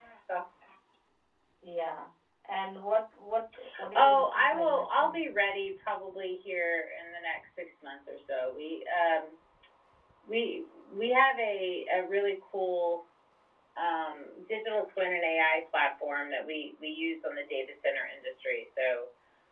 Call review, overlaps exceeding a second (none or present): present